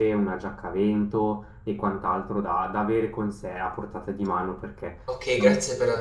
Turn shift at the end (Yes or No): Yes